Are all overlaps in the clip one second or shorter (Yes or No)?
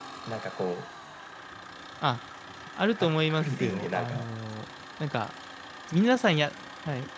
No